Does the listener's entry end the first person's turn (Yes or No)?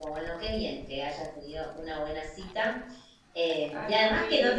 No